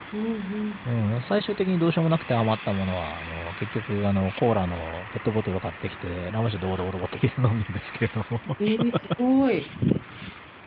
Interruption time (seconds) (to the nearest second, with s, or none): none